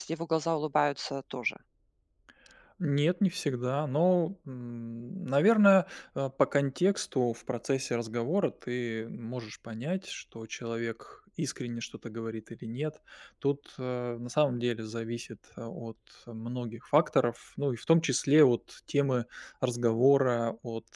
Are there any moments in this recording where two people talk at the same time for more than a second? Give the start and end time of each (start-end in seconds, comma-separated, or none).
none